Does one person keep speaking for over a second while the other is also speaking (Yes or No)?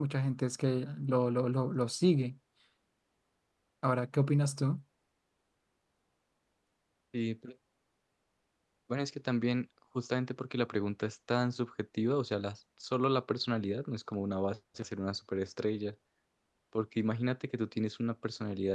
No